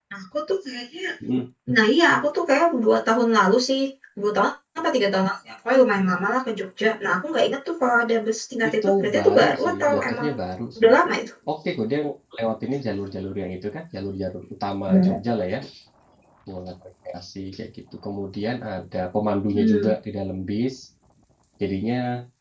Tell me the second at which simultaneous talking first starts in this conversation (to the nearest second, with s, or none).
9 s